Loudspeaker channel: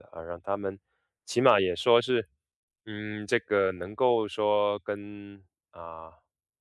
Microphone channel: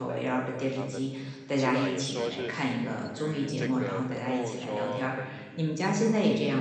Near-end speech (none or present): present